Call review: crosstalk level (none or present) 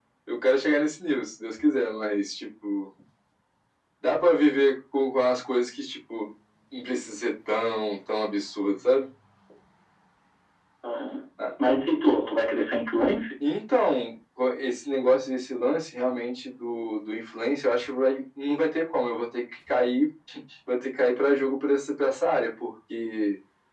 none